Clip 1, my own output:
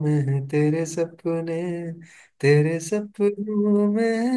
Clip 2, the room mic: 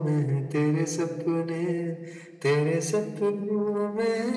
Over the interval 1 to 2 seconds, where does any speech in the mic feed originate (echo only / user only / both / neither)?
echo only